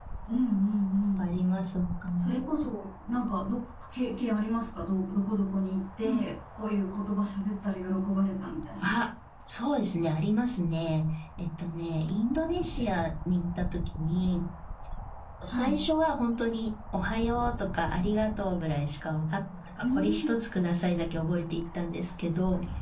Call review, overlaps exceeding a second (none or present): none